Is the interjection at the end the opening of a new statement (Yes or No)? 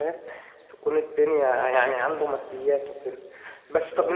No